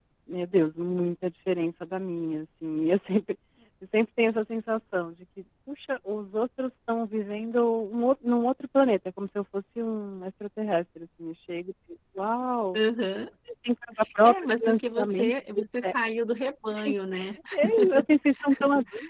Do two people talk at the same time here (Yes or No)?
Yes